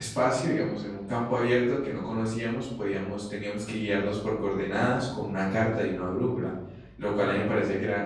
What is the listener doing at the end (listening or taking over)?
listening